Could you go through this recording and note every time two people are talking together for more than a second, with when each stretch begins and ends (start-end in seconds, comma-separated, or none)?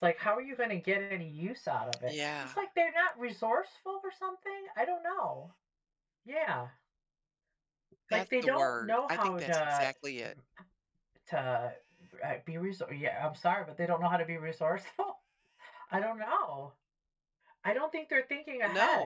8.1-9.9